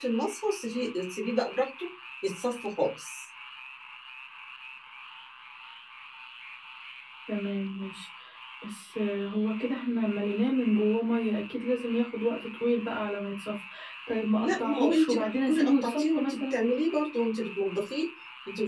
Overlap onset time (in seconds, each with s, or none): 14.4 s